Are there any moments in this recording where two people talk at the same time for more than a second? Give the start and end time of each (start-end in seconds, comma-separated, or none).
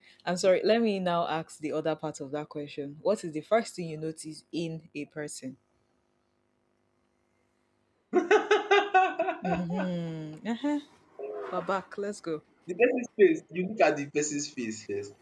none